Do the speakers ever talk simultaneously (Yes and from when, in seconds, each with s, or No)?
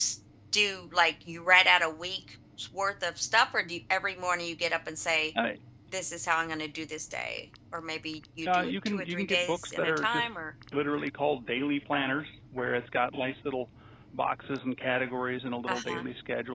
Yes, from 8.5 s